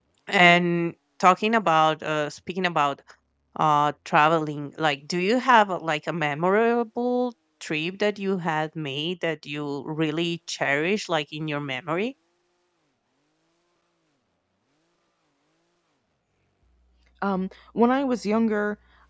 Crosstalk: none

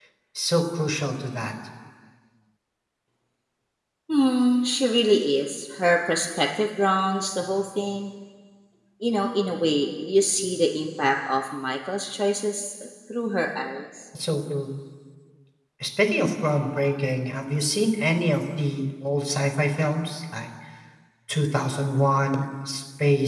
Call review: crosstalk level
none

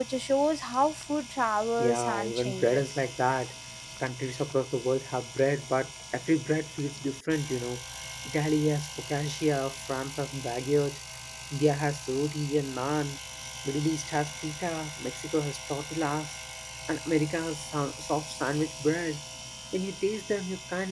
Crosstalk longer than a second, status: present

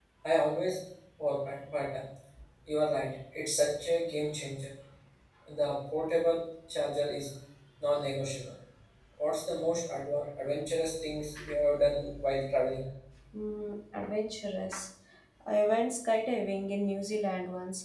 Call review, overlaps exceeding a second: none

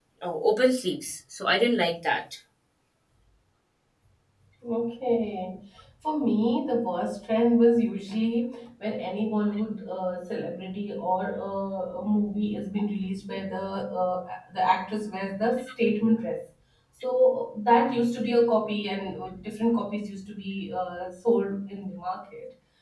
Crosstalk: none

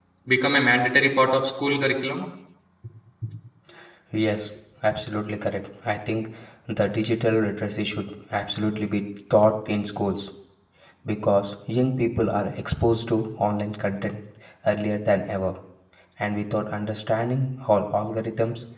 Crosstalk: none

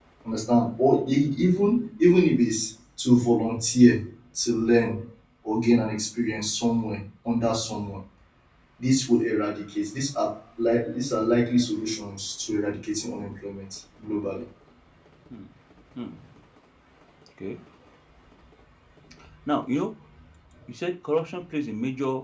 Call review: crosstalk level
none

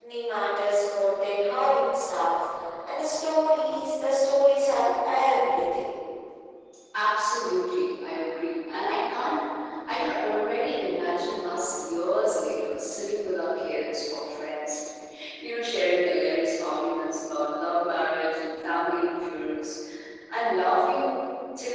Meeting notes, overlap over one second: none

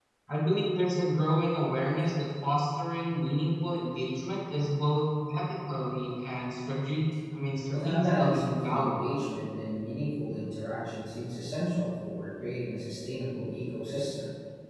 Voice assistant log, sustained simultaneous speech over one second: present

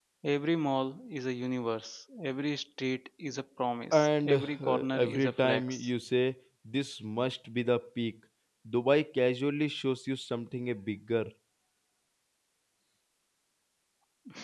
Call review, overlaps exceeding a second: present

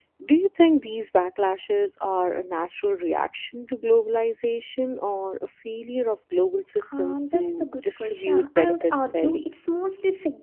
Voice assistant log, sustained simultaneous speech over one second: present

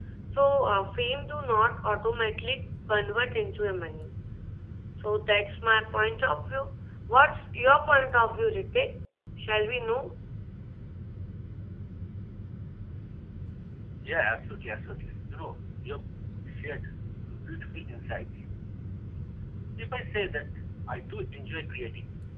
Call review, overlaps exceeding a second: none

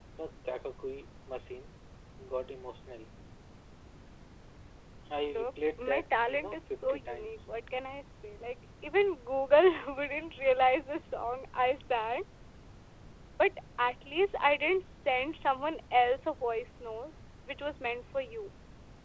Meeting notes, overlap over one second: present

